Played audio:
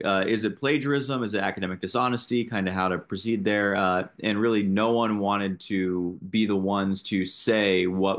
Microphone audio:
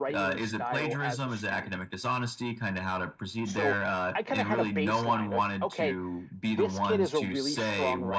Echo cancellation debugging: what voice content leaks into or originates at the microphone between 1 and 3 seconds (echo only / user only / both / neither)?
both